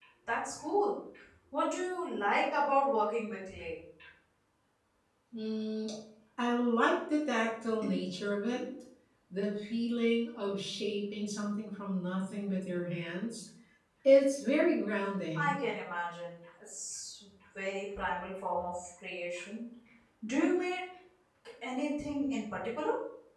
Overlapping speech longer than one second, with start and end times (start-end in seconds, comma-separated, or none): none